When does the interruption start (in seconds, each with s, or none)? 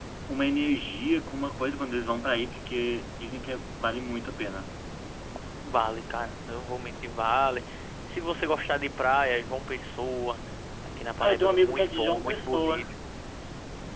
11.2 s